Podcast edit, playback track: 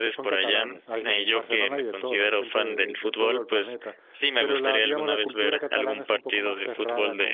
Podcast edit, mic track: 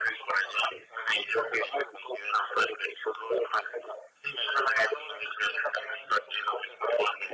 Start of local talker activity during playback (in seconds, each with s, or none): none